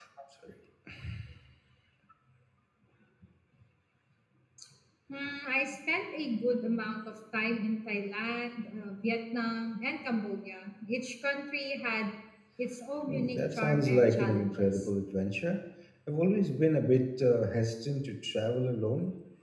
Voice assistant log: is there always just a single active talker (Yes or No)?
No